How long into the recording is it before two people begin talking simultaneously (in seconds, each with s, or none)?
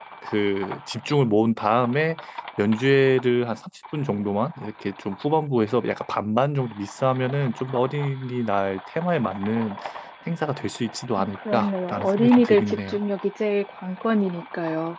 11.2 s